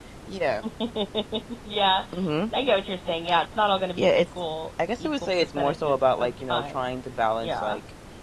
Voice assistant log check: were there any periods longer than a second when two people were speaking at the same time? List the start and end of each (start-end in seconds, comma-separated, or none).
5.0-6.8